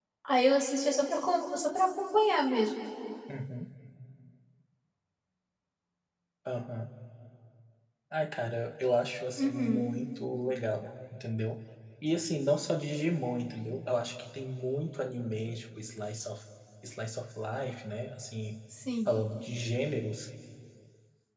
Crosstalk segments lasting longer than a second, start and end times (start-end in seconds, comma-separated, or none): none